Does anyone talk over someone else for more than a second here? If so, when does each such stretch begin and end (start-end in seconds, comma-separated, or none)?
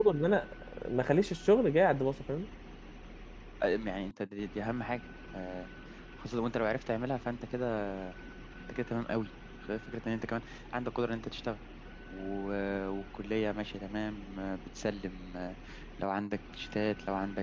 none